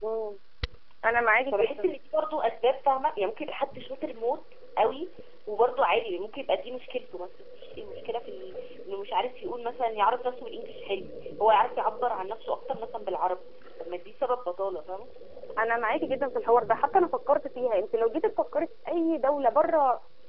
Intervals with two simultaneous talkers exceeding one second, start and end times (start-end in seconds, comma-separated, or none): none